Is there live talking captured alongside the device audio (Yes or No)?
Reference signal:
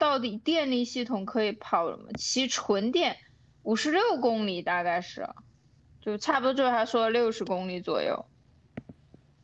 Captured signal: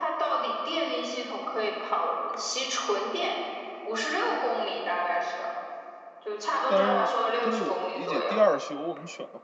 Yes